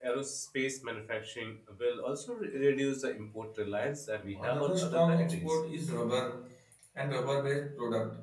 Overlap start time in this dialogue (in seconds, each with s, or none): 4.3 s